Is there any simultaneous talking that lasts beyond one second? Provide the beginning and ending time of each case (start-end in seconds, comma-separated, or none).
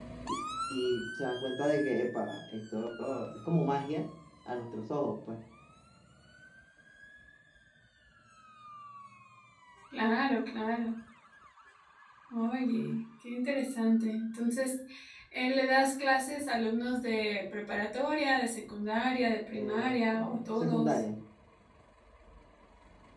19.5-21.0